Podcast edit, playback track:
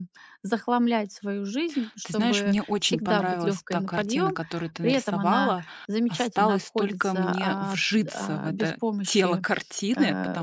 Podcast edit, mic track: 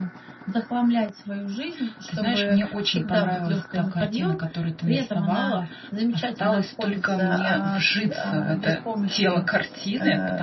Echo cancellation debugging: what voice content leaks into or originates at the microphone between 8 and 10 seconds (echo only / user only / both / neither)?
echo only